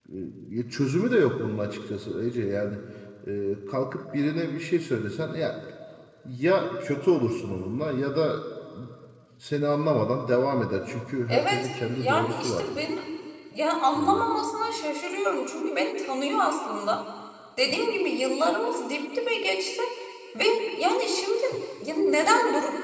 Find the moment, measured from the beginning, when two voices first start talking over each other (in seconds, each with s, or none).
11.3 s